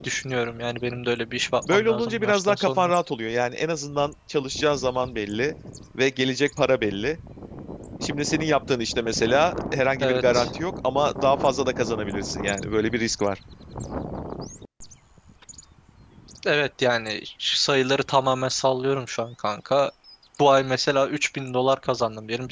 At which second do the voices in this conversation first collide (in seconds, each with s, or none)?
1.7 s